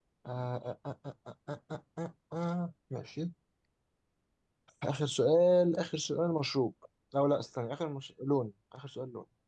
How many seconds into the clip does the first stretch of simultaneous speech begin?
none

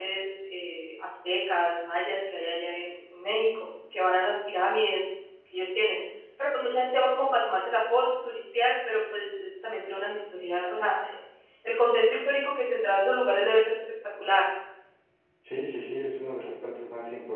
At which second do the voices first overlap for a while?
none

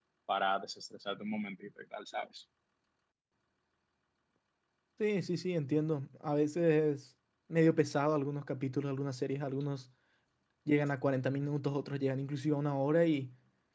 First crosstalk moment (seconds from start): none

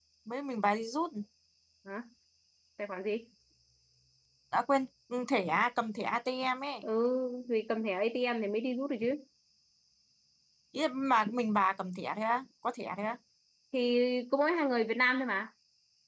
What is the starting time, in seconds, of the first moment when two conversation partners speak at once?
none

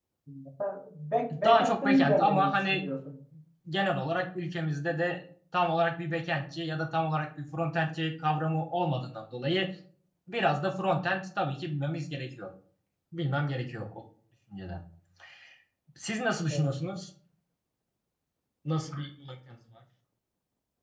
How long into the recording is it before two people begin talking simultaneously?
1.4 s

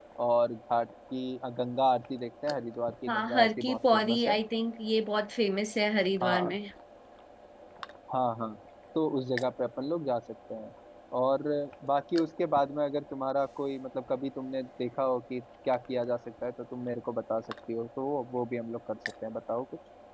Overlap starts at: 3.1 s

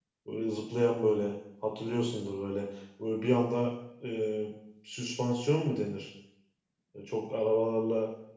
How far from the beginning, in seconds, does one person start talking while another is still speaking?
none

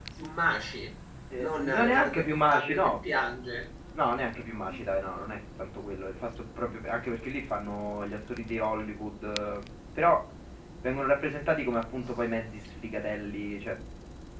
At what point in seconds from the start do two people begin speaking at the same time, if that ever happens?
1.3 s

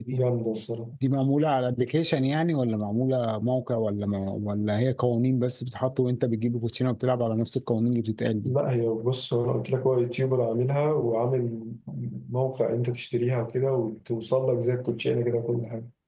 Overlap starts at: none

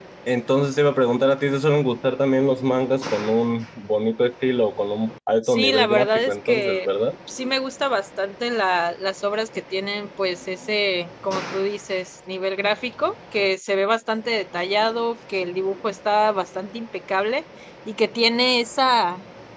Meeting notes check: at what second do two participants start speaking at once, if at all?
5.4 s

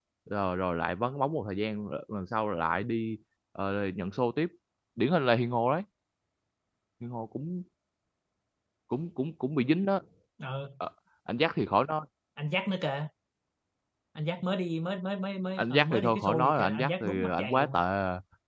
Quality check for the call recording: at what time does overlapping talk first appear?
15.6 s

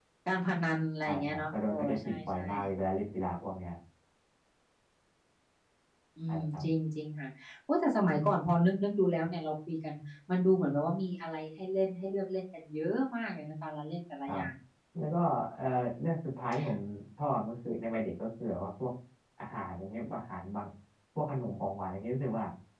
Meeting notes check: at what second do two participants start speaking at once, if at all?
1.1 s

